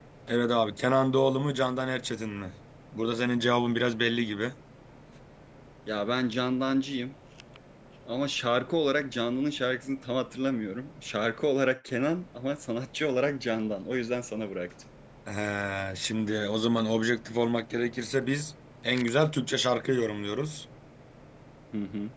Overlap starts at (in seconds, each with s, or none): none